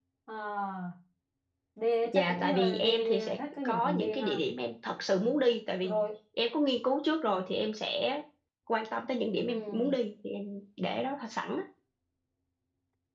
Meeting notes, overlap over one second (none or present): present